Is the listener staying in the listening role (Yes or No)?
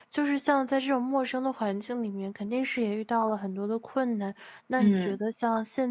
Yes